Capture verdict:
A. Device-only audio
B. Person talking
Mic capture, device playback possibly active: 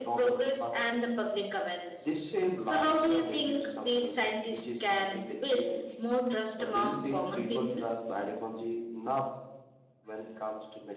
A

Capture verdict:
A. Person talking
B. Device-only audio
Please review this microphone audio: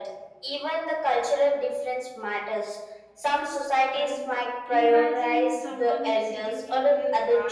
A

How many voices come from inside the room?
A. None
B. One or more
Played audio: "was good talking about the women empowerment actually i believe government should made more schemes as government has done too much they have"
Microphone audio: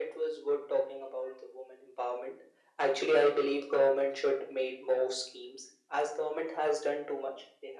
A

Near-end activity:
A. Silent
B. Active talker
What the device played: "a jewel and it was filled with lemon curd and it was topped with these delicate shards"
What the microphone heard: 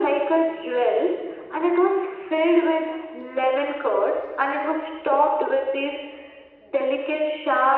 A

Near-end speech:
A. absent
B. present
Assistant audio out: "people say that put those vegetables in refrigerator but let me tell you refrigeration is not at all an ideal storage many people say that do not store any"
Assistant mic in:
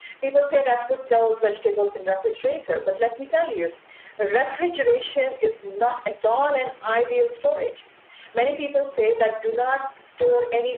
A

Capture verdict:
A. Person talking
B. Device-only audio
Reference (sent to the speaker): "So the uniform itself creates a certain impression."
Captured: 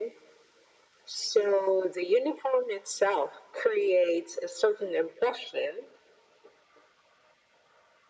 B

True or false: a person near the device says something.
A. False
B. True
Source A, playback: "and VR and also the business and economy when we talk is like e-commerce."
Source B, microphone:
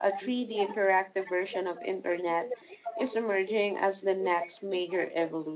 B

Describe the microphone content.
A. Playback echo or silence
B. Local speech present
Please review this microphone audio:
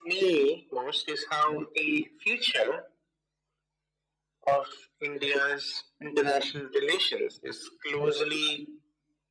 A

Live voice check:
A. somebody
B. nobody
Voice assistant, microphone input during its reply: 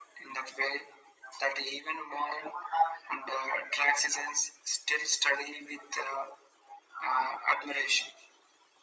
B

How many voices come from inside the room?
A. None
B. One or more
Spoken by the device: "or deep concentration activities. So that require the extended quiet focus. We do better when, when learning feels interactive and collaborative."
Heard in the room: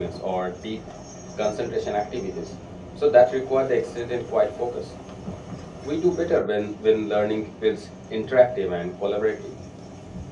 A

